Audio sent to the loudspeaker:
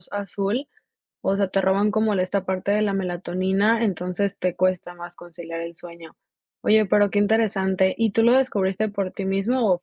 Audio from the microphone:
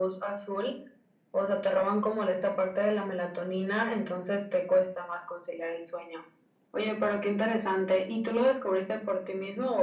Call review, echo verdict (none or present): present